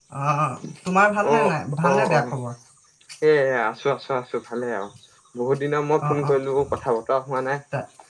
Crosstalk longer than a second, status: none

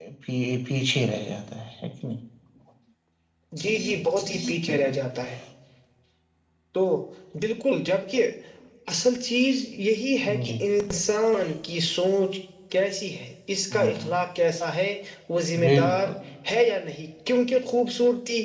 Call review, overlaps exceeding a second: none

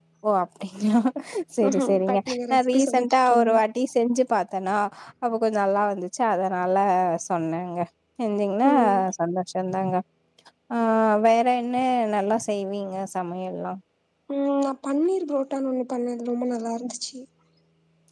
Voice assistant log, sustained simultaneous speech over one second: present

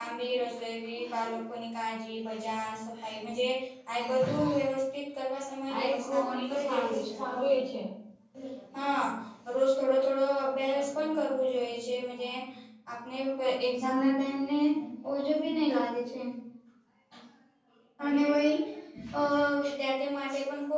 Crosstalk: present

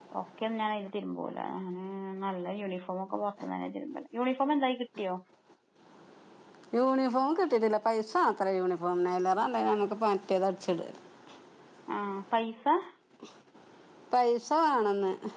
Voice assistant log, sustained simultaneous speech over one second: none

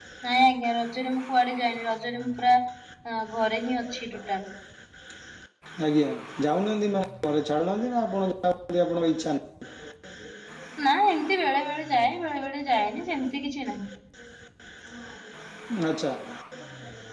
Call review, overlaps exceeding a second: none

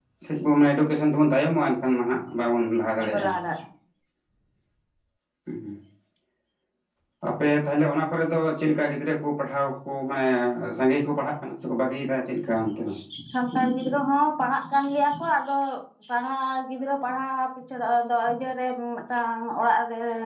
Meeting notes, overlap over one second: none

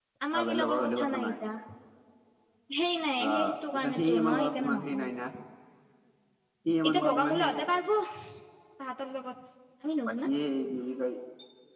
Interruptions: present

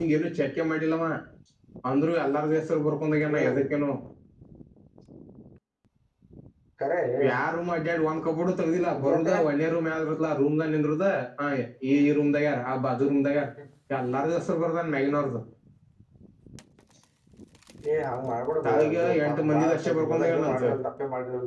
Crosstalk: present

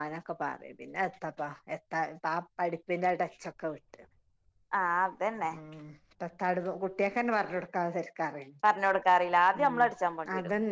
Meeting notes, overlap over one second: none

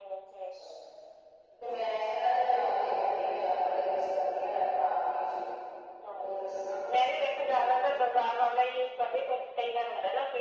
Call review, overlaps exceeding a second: none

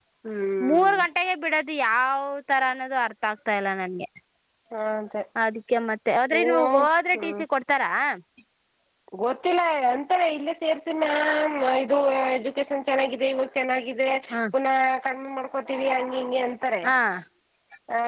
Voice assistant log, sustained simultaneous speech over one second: none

